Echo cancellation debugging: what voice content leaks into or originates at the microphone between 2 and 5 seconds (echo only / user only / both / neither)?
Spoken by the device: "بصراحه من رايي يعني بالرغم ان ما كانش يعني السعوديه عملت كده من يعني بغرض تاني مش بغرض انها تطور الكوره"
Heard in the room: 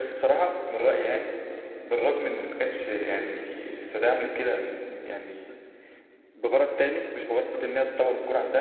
echo only